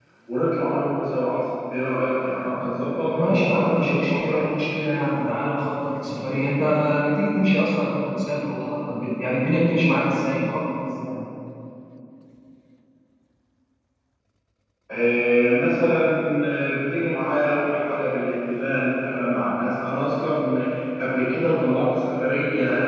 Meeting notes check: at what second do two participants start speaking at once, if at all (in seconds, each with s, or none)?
3.2 s